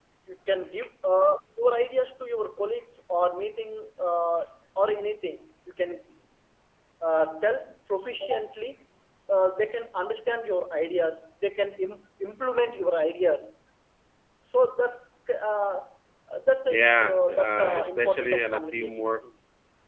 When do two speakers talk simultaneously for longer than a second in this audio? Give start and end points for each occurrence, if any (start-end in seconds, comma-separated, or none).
16.7-19.2